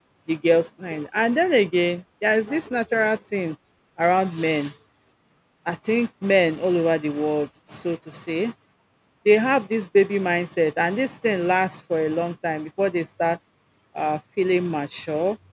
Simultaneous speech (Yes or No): No